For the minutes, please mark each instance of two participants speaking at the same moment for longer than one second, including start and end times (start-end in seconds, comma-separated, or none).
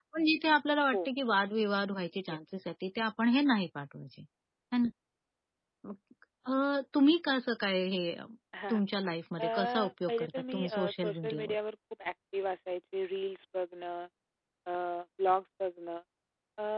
10.1-11.5